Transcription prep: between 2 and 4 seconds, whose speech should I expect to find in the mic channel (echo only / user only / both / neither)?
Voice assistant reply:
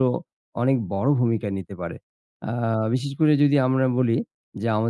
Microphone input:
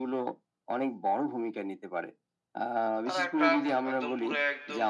both